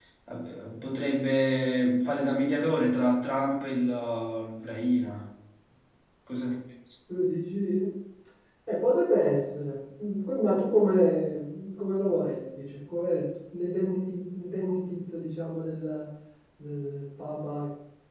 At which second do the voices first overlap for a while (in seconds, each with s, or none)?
none